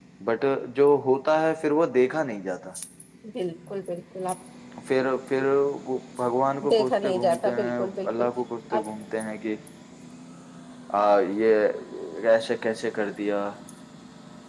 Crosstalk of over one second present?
Yes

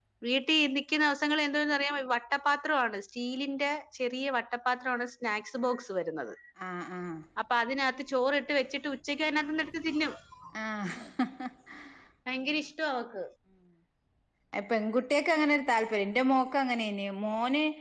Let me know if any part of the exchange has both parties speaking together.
No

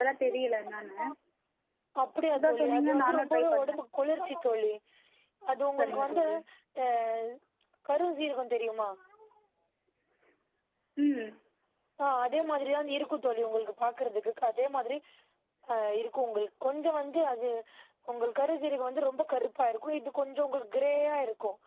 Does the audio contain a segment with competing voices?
Yes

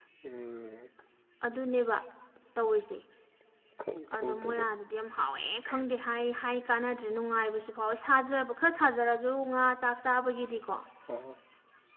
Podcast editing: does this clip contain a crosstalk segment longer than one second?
No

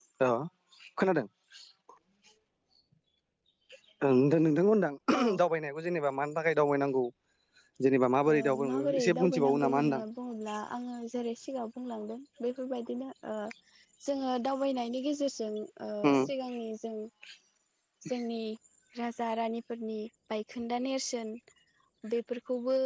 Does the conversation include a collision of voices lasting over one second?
Yes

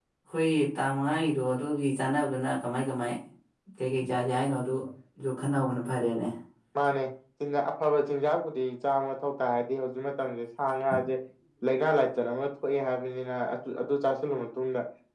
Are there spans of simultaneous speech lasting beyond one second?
No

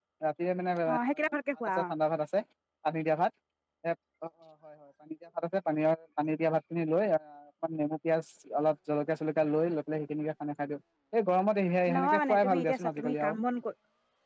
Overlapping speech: Yes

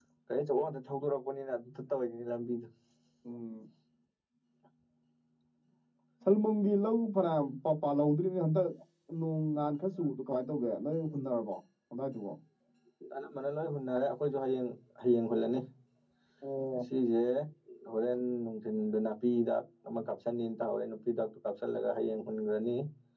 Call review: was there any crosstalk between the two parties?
No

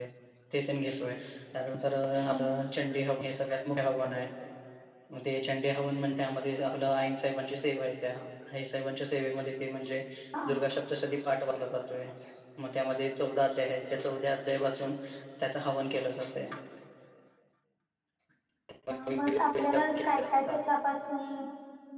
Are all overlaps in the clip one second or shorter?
Yes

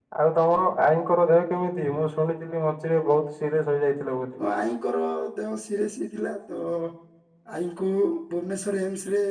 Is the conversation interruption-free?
Yes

